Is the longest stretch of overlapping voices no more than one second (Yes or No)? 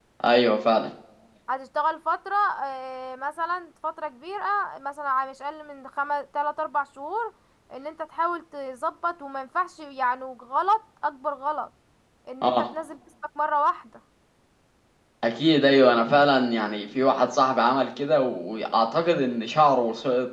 Yes